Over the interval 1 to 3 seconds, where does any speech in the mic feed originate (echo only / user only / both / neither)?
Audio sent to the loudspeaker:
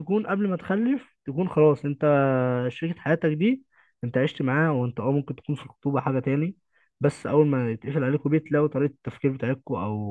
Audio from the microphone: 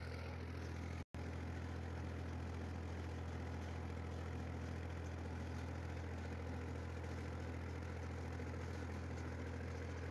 neither